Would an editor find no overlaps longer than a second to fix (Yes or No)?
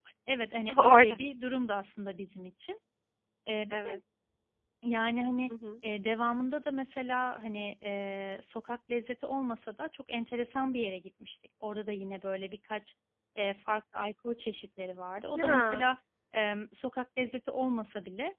Yes